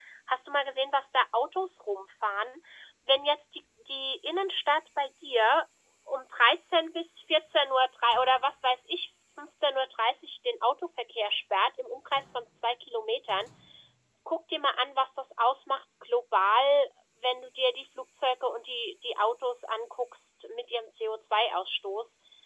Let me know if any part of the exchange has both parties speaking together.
No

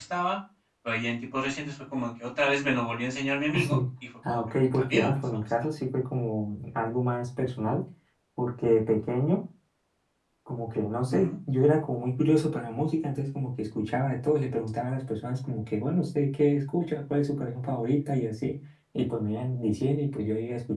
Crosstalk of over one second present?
Yes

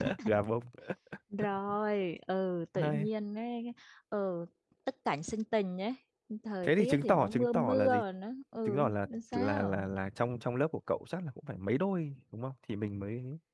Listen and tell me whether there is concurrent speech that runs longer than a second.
Yes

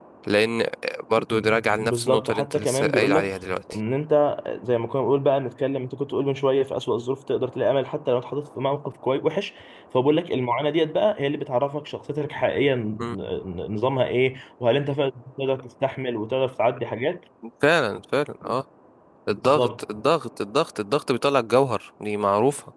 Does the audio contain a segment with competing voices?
Yes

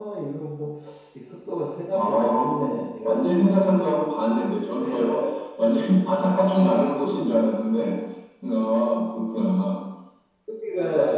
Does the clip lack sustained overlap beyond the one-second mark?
No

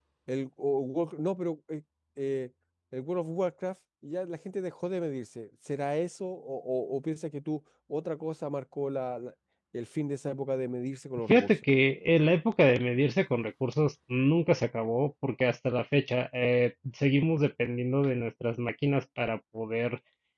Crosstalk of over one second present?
No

